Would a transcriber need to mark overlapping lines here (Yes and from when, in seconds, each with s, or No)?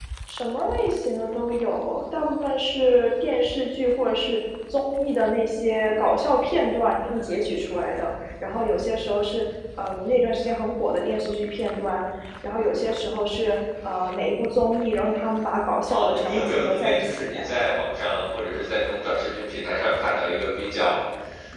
Yes, from 15.9 s